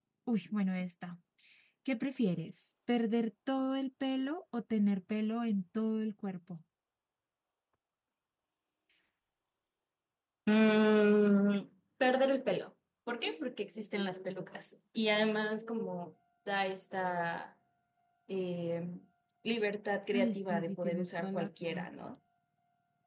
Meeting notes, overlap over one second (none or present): present